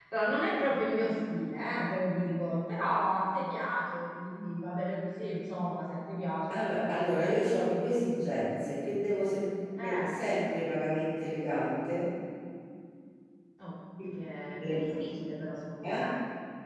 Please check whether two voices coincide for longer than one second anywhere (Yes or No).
No